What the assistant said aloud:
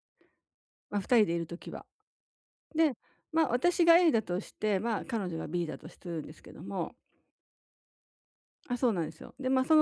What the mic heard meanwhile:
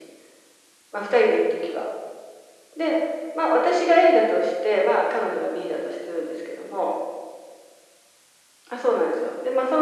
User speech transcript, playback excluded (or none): none